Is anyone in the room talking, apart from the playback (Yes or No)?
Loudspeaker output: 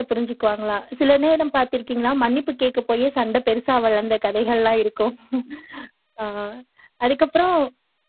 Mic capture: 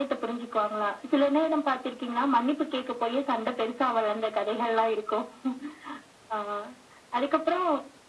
No